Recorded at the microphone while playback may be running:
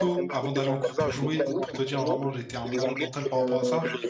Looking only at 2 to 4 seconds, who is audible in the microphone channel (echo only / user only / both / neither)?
both